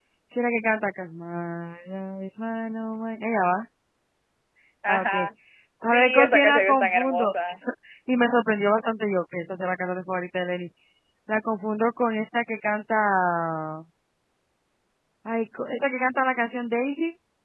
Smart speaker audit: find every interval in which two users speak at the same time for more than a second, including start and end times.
5.9-7.3

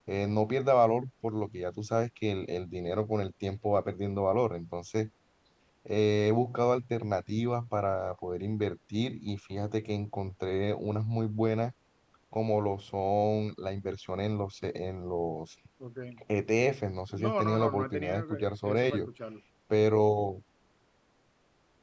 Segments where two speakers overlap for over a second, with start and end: 17.1-19.0

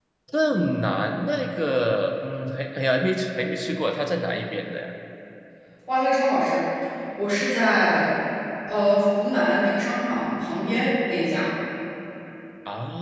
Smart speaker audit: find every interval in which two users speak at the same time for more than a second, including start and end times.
none

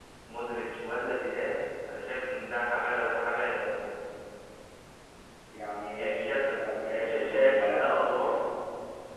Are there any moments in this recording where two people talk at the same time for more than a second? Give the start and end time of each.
6.0-8.4

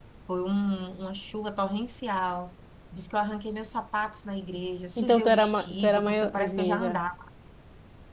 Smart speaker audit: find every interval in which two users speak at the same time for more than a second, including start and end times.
5.0-7.0

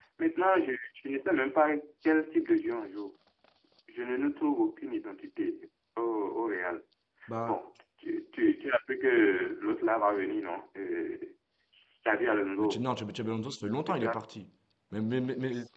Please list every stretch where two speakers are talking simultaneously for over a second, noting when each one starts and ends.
none

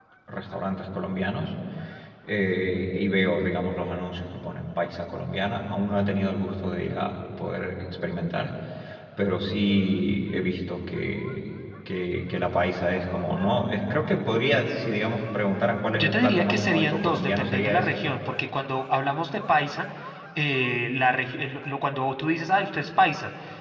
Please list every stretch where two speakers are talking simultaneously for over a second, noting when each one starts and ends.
15.9-18.0

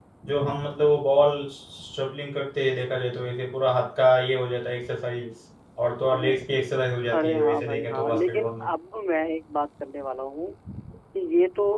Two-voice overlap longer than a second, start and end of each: 7.1-8.7

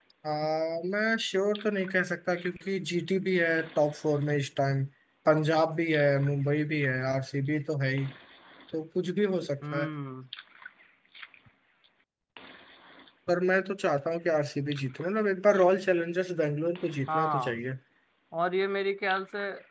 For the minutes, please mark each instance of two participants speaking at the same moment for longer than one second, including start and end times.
none

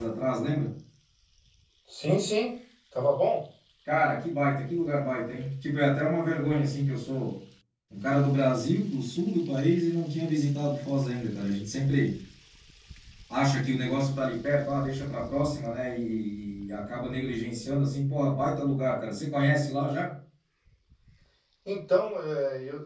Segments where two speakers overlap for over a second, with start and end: none

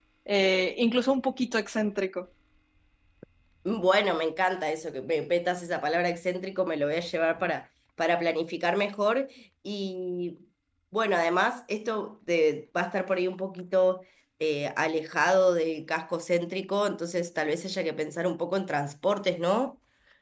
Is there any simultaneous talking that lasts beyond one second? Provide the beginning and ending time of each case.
none

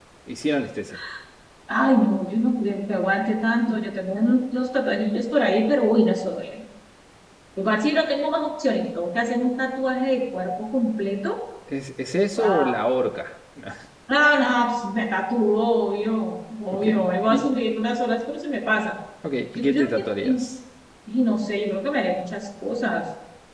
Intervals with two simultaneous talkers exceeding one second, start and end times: none

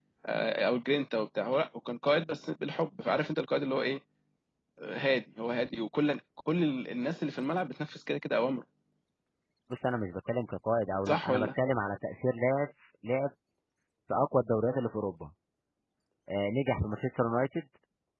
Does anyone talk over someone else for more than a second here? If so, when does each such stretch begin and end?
none

